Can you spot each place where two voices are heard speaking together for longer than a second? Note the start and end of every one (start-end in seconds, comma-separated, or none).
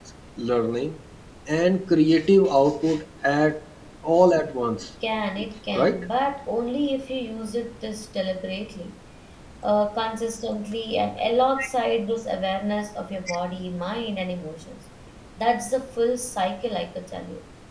none